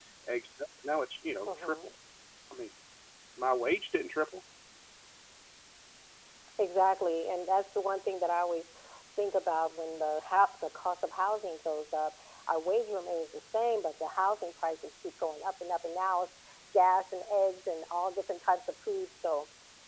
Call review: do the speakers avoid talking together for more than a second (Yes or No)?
Yes